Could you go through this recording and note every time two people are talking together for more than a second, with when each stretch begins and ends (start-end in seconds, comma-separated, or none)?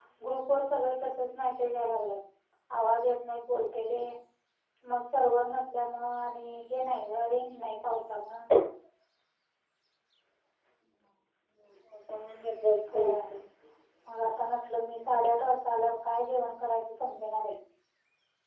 none